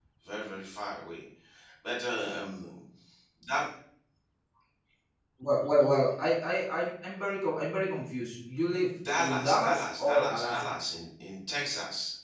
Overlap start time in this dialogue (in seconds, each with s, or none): 9.1 s